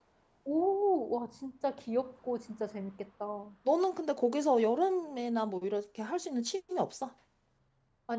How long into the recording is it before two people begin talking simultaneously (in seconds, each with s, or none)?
none